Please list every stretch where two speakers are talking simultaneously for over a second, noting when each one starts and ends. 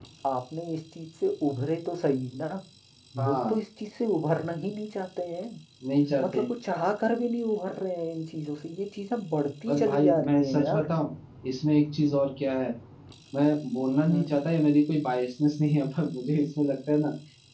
9.7-10.9

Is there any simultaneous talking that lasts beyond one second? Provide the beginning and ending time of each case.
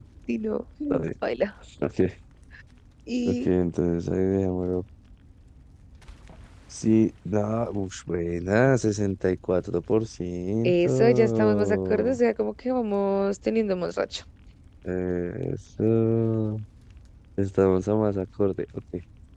10.6-12.2

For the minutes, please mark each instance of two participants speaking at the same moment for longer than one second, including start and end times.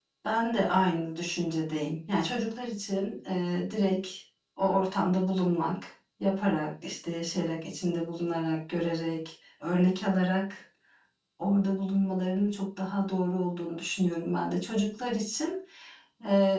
none

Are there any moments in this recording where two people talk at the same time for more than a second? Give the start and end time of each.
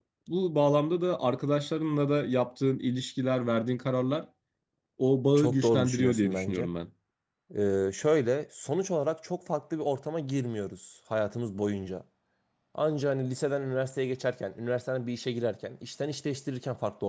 5.3-6.7

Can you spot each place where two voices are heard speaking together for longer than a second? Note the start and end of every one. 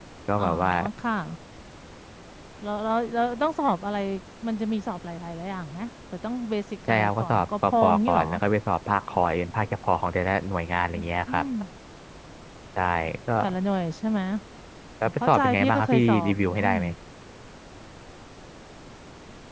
6.9-8.3, 15.0-16.7

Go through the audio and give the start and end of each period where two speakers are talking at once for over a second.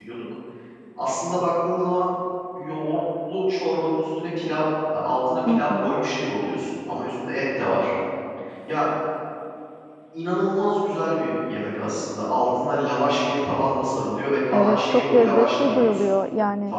14.5-16.1

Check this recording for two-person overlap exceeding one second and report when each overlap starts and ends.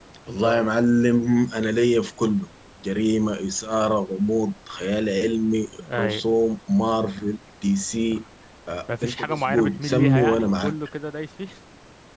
9.0-10.8

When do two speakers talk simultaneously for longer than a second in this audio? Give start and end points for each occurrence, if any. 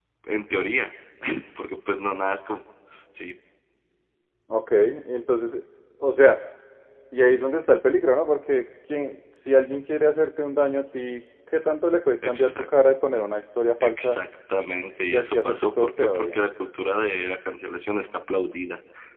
15.1-16.4

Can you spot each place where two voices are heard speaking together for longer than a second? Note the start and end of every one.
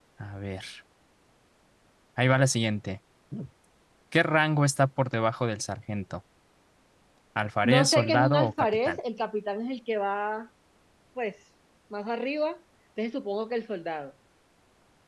7.6-9.0

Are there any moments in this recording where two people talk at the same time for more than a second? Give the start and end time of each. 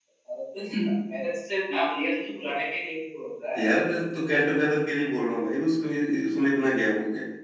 none

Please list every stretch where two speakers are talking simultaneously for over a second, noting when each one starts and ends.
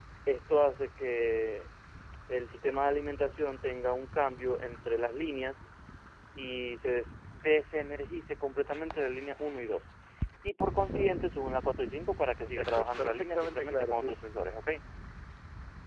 12.4-14.2

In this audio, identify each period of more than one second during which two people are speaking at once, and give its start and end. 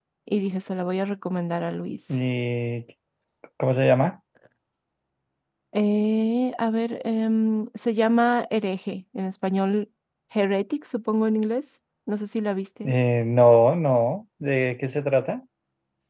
none

